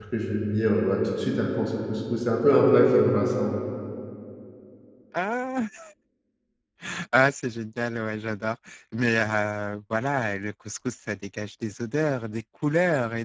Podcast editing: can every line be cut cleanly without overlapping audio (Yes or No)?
Yes